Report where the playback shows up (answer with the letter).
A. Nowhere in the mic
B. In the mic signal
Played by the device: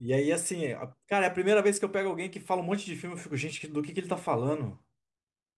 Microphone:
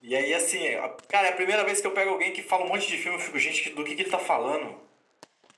B